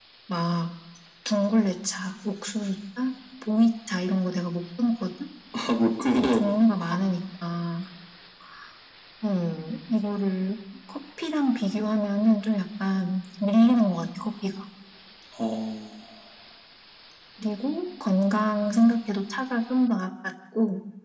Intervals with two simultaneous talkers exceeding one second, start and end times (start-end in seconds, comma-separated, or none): none